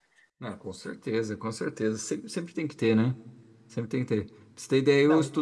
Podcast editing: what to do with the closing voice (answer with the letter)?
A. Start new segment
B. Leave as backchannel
B